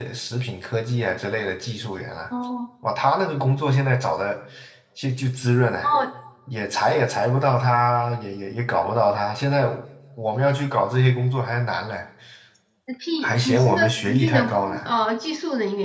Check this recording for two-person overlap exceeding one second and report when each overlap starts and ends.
13.2-14.8

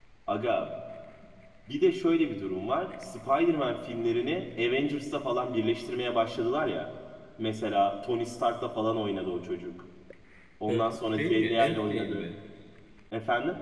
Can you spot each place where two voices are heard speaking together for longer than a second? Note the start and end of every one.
10.7-12.3

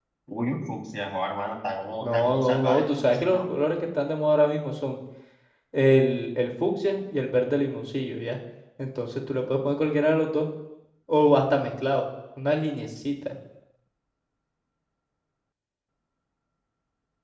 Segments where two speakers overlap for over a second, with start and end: 2.0-3.5

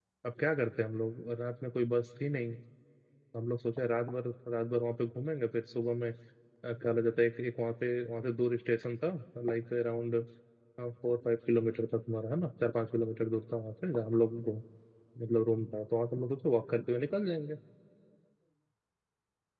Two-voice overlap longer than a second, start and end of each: none

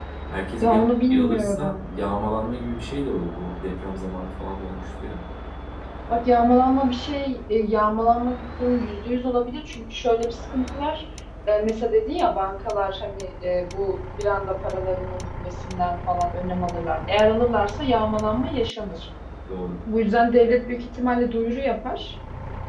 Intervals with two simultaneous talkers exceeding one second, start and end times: 0.6-1.8

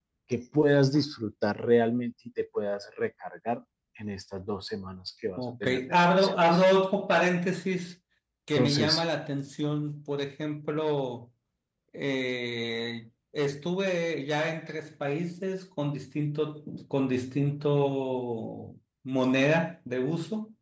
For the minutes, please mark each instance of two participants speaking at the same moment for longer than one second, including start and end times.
5.4-6.6

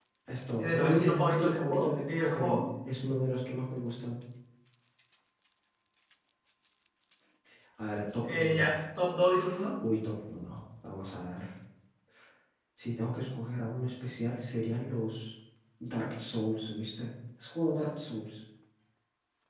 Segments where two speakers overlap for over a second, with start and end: 0.6-2.6

